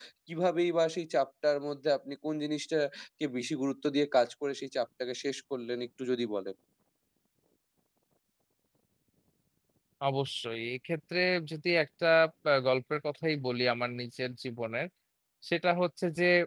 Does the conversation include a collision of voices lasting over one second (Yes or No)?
No